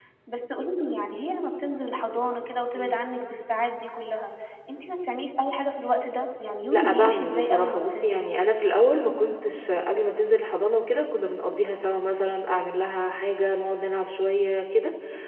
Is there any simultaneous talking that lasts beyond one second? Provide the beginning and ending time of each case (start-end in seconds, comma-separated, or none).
6.7-8.2